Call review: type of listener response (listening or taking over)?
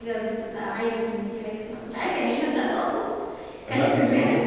taking over